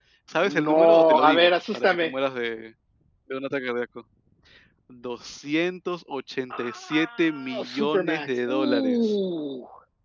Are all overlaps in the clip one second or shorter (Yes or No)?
No